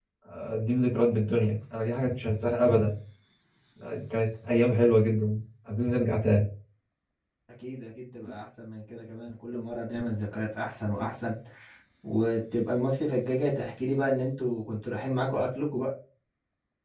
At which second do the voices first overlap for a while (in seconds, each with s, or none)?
none